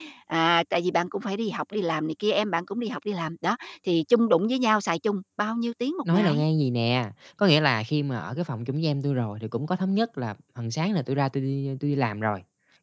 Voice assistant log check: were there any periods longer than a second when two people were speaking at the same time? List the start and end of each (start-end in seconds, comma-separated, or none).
none